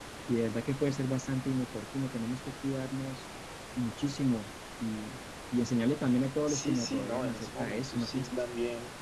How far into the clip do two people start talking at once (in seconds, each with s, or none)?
6.5 s